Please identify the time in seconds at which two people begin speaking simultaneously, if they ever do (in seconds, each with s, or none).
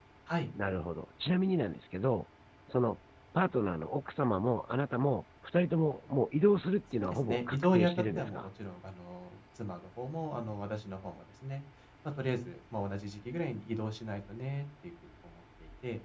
7.0 s